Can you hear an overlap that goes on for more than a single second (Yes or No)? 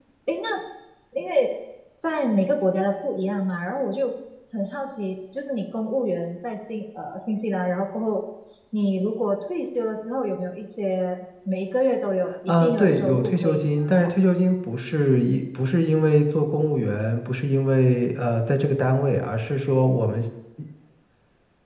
Yes